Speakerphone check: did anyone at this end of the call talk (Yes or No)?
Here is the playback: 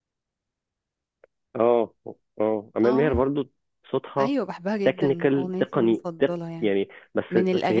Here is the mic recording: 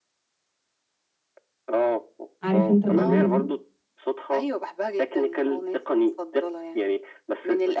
Yes